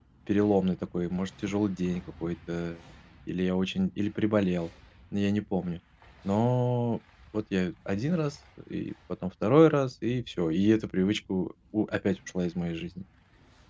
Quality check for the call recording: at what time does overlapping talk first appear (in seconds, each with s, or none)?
none